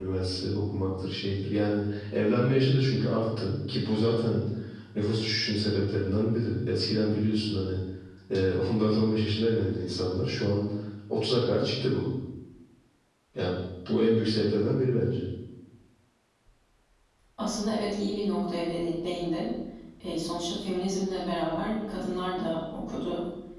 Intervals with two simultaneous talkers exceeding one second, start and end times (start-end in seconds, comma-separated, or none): none